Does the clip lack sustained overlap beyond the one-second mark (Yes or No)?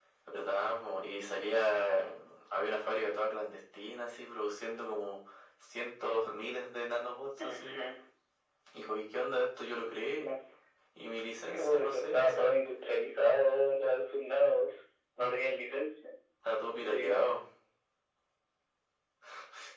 No